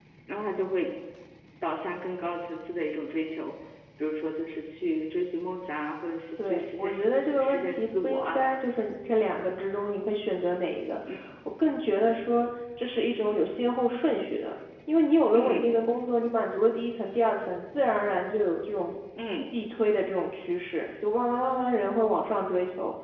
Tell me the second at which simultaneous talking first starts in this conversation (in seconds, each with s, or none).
6.4 s